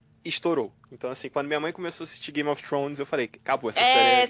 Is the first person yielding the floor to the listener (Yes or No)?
Yes